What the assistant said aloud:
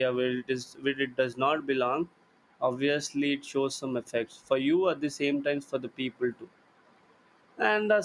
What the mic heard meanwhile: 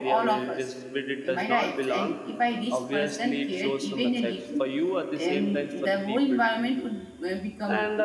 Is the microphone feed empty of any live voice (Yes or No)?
No